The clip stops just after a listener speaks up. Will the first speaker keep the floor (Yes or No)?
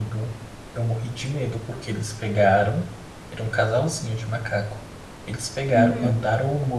Yes